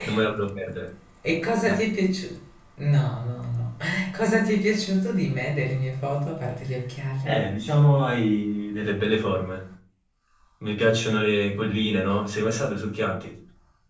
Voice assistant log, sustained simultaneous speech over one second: none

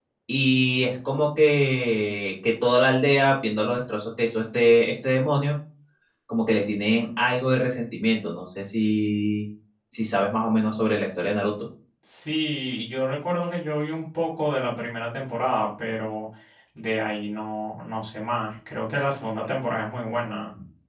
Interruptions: none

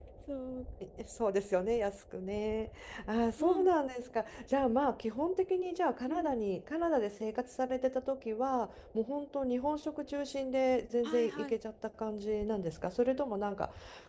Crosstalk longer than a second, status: none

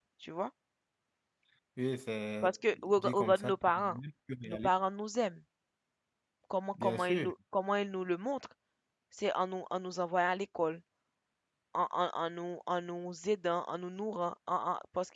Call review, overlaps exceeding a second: present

